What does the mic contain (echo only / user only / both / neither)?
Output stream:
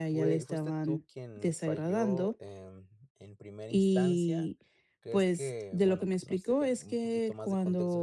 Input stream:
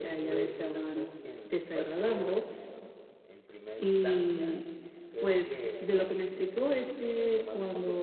echo only